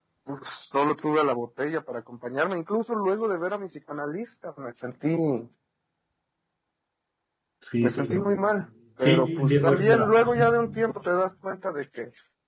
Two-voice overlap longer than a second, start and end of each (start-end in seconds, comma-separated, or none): 9.0-10.8